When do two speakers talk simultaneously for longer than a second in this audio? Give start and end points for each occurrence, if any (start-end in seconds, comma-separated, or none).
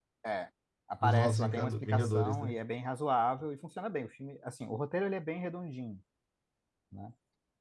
1.0-2.6